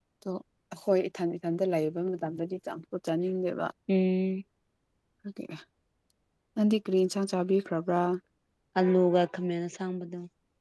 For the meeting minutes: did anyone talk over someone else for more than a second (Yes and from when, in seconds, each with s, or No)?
No